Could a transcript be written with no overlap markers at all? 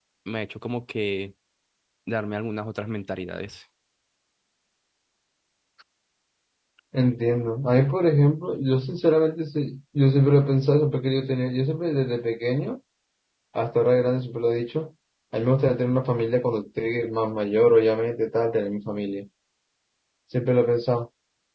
Yes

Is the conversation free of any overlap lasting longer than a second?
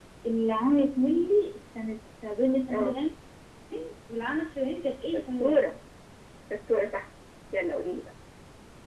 Yes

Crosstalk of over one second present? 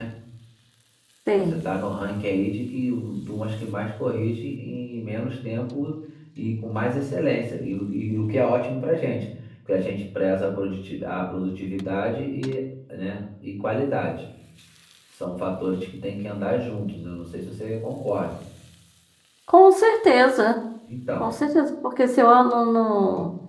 No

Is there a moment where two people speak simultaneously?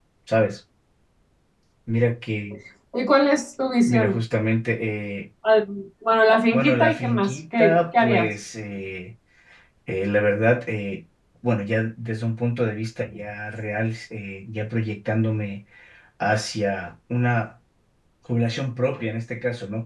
Yes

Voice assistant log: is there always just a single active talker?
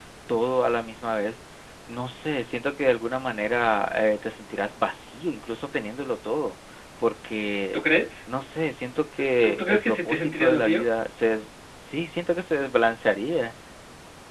No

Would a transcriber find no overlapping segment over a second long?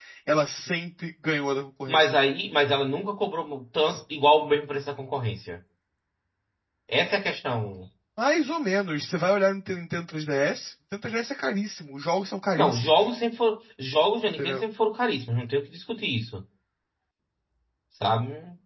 Yes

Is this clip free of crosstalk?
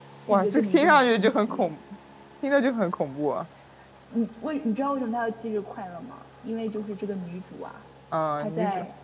No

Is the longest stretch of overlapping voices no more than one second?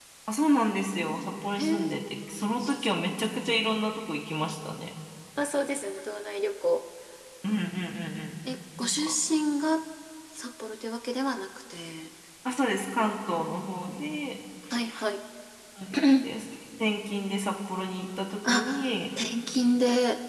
Yes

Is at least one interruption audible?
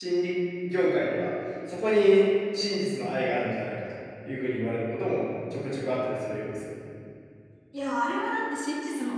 No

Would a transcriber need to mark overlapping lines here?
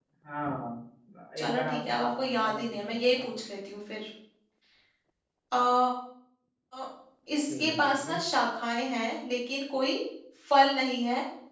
Yes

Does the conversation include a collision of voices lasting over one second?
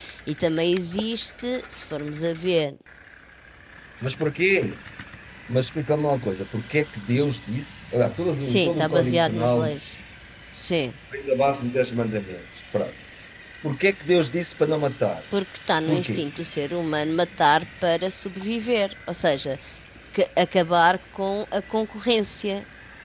Yes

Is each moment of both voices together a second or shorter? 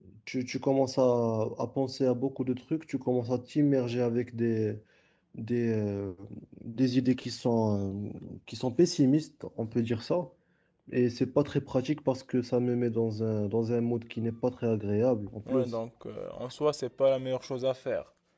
Yes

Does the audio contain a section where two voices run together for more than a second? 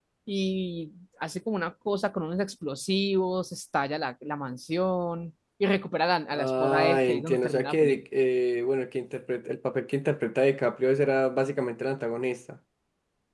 Yes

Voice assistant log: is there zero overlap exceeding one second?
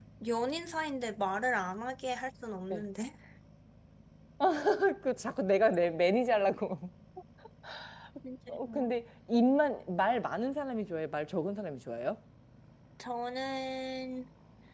Yes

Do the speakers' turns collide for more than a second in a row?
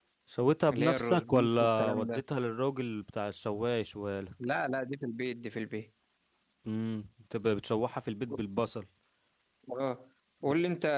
Yes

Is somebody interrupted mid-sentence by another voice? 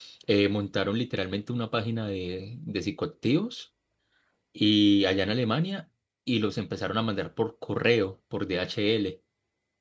No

